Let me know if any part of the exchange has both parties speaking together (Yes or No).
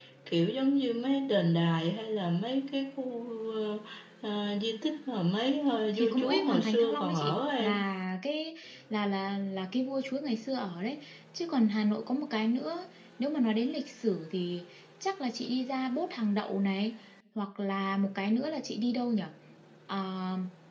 Yes